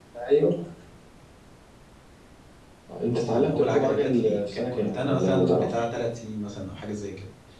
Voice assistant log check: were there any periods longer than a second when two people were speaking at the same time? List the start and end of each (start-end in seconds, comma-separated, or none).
3.0-5.7